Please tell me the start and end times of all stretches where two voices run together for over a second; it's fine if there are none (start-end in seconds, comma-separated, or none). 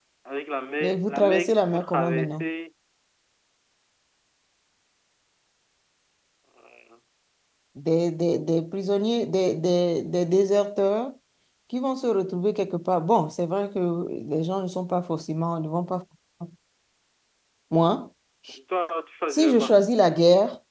0.8-2.4